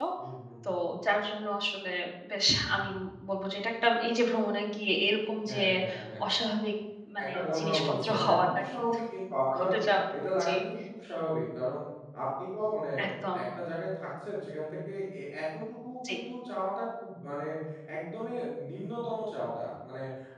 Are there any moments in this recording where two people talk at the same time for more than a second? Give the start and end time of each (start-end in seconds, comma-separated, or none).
7.2-8.8